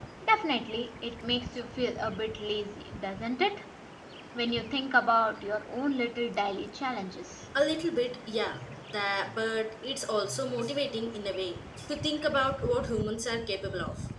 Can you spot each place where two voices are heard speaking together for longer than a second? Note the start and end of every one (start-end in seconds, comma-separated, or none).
none